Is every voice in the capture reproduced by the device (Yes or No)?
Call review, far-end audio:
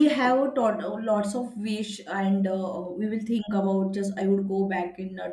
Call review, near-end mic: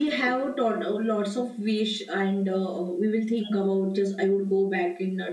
Yes